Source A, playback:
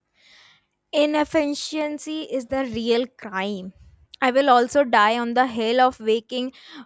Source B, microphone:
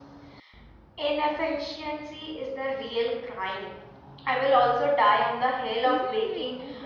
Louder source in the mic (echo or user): echo